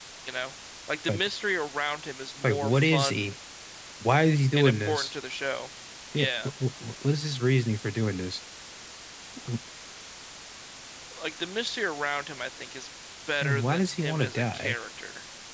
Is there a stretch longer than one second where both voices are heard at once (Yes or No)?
Yes